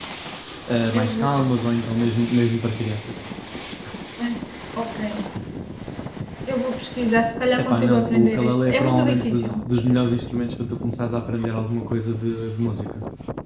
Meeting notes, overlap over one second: present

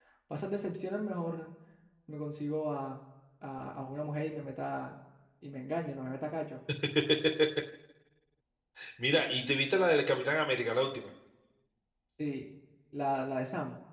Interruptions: none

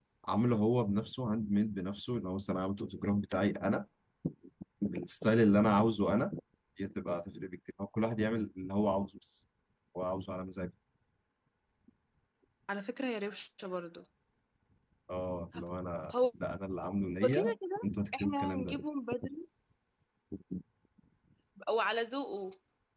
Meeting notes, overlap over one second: present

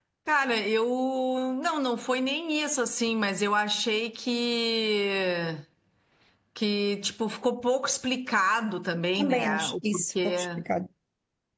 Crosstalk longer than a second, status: present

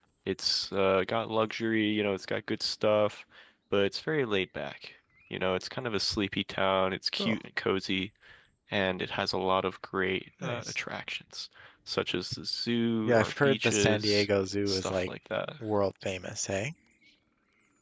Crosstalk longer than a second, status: present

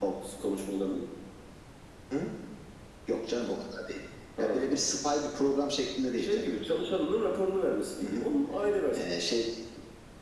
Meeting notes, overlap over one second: none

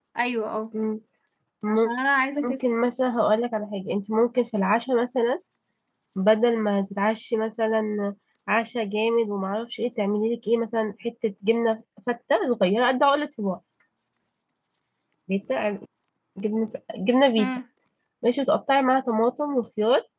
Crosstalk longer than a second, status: none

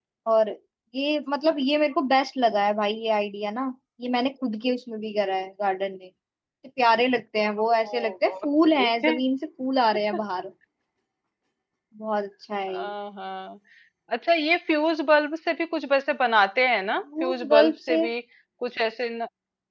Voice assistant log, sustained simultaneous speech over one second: present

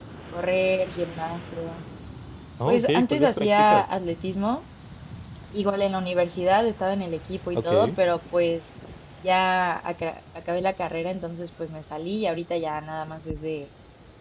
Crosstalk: present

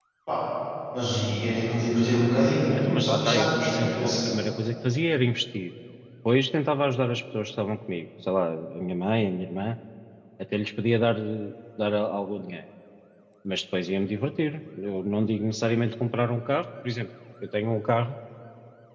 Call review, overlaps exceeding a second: present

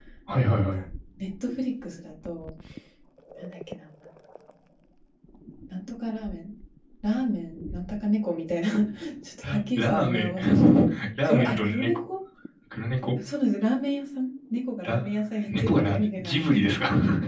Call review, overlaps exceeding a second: present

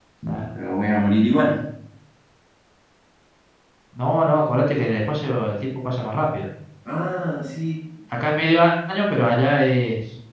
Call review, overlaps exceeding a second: none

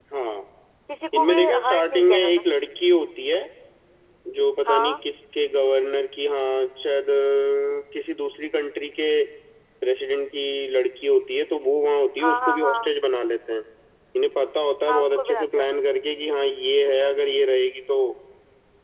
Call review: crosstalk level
present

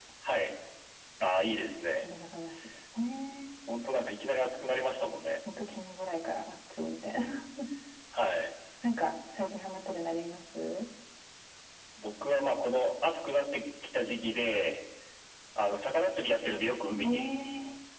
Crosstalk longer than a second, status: none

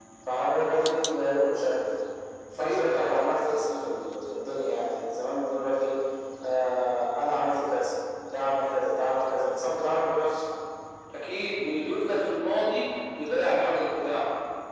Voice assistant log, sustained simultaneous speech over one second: none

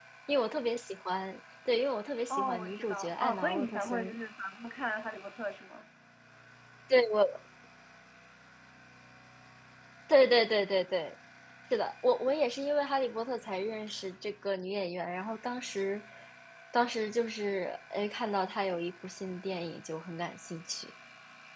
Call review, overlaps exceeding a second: present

